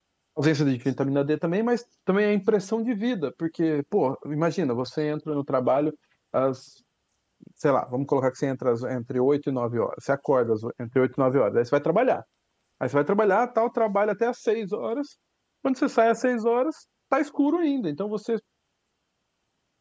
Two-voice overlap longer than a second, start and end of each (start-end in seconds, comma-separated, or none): none